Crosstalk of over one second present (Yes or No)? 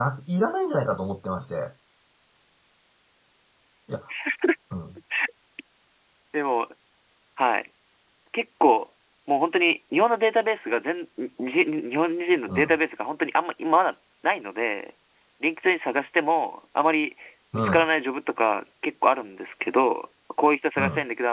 No